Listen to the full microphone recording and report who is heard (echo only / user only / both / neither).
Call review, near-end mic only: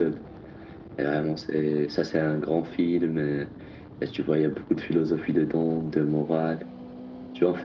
echo only